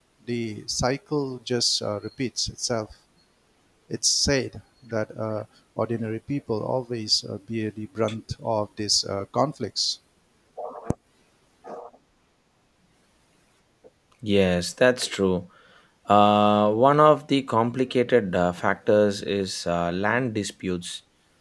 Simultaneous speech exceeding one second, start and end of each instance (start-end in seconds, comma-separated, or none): none